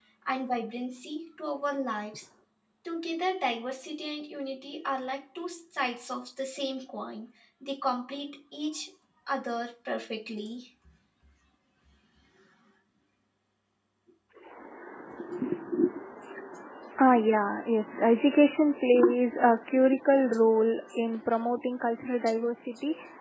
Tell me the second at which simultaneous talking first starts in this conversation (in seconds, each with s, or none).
none